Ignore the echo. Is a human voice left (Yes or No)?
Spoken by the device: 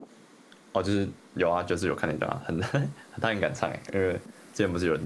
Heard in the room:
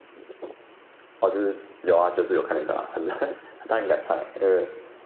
No